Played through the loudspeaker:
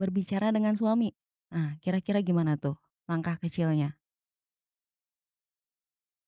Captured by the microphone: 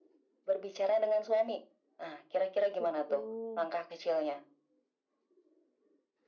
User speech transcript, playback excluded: Betul.

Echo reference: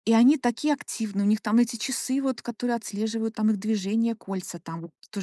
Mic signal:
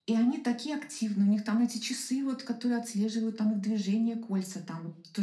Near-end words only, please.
none

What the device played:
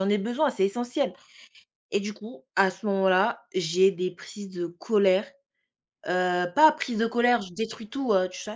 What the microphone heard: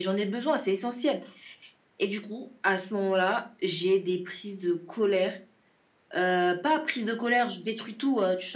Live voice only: none

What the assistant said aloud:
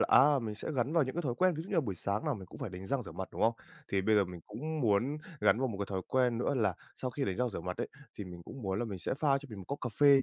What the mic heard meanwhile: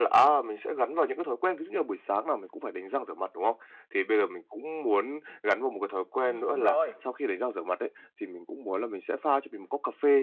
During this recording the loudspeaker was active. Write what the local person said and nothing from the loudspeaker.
ừm, đúng rồi.

